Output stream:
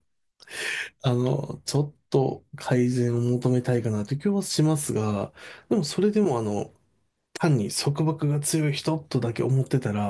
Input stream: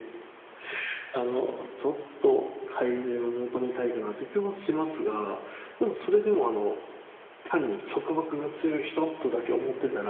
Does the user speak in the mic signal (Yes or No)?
No